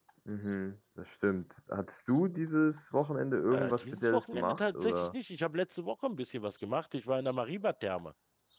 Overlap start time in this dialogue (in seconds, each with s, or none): 3.5 s